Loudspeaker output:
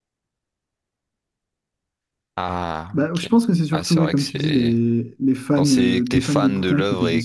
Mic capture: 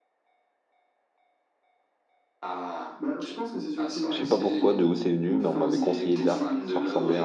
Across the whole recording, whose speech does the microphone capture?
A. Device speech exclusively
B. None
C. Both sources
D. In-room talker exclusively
C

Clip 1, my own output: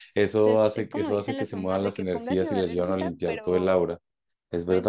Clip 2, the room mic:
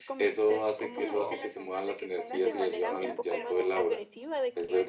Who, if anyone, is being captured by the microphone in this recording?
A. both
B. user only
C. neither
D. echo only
A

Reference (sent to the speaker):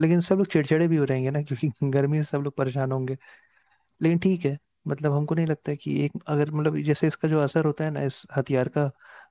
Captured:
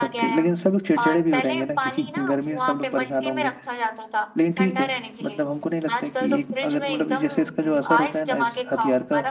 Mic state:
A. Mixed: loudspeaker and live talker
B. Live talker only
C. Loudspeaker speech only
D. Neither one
A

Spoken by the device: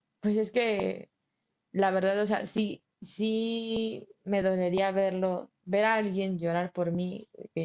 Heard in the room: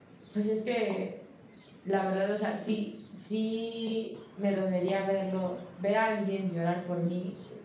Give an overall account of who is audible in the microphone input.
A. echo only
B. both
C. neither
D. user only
A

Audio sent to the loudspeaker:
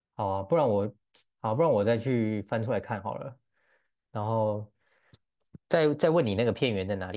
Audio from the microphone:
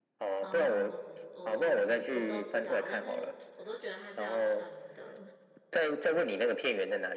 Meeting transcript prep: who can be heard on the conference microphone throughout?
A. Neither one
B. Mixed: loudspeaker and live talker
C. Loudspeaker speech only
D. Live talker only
B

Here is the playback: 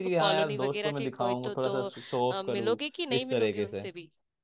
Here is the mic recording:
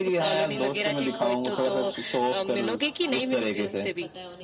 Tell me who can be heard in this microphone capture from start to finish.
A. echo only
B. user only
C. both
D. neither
C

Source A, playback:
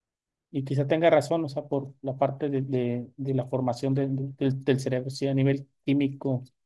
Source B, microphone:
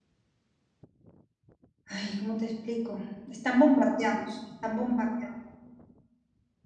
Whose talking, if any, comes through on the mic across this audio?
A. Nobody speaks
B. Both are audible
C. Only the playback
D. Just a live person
D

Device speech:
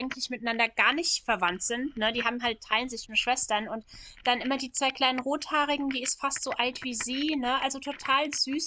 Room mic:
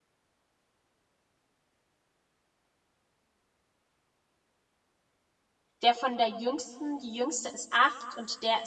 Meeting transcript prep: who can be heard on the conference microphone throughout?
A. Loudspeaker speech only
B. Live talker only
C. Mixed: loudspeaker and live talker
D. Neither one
B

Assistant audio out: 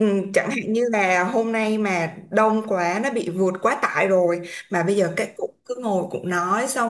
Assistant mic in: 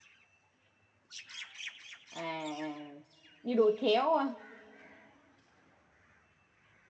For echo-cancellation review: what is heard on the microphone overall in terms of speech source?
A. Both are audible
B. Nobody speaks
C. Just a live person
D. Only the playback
C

